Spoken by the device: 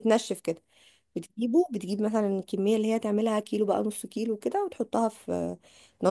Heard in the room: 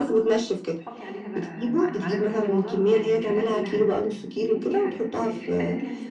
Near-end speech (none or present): present